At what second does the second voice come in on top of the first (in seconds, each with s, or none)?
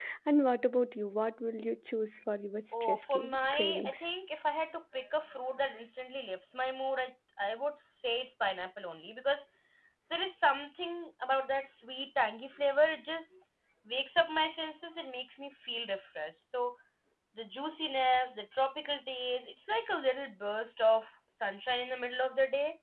2.7 s